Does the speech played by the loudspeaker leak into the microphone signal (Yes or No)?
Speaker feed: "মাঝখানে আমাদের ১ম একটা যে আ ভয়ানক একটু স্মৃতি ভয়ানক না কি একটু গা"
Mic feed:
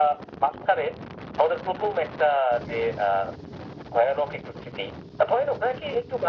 Yes